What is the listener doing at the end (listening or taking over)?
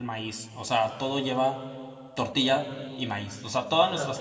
listening